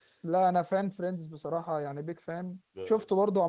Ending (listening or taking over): listening